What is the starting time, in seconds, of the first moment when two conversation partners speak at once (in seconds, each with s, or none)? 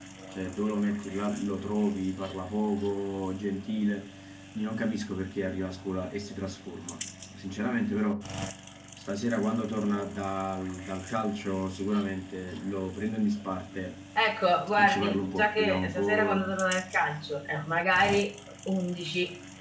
14.8 s